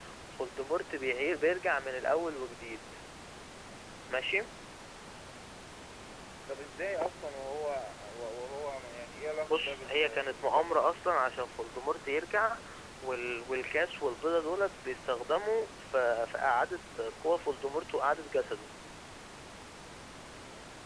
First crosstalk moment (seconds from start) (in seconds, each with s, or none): 9.5 s